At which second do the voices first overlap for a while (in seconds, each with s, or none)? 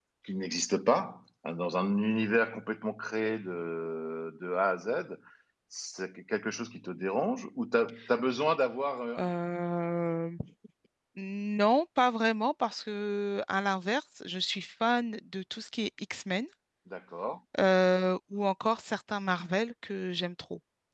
none